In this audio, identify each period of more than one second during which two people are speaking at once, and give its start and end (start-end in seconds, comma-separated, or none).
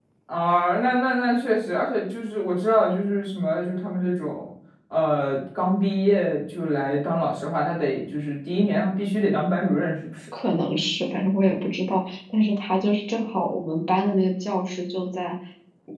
none